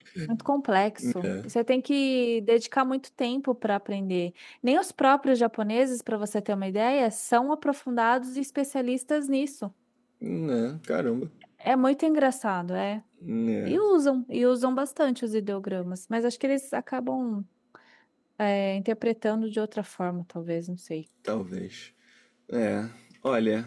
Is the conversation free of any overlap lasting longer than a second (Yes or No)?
Yes